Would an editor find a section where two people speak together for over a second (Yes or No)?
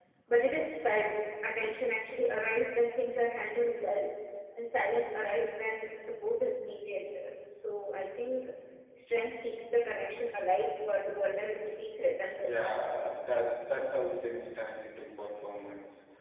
No